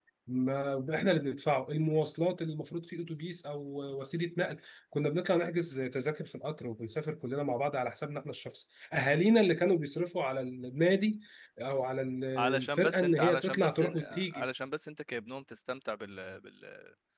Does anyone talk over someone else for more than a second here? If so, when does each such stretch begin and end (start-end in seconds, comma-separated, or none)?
12.6-14.5